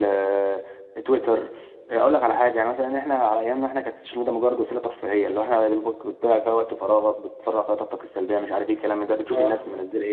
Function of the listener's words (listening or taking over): listening